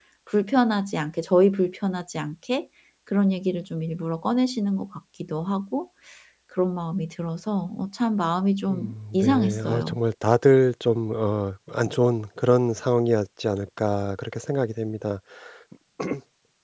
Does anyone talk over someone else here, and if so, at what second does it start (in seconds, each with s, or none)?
8.7 s